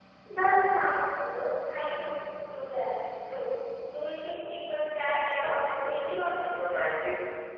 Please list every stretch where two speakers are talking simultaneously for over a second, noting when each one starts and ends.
5.3-6.6

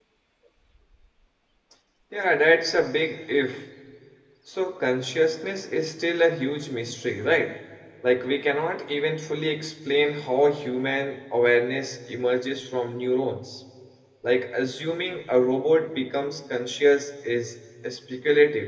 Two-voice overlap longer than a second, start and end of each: none

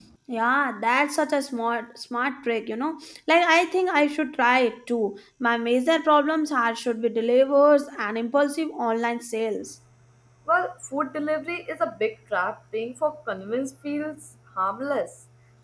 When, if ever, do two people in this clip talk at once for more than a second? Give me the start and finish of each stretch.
none

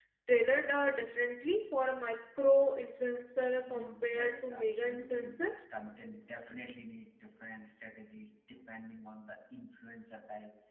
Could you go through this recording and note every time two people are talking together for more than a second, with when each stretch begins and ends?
3.6-5.3

